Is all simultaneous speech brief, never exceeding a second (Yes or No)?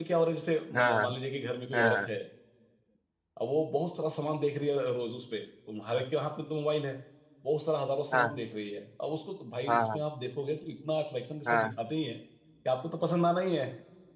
Yes